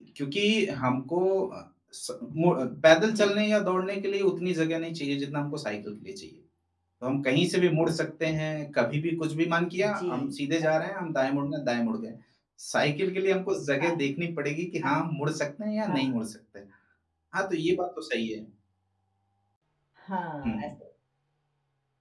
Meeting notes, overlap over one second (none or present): none